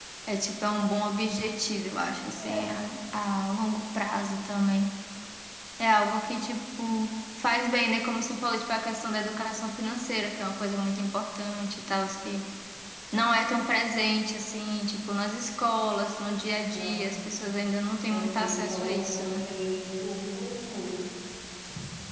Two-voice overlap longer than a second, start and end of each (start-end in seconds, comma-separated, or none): 18.1-19.4